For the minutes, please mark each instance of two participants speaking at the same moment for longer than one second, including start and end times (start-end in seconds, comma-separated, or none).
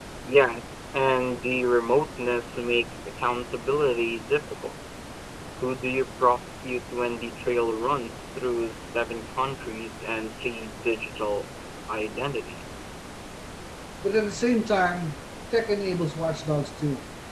none